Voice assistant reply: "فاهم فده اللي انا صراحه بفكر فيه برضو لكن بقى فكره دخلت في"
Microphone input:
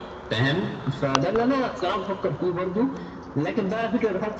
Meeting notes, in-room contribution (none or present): none